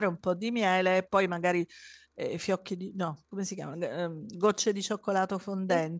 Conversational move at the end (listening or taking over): listening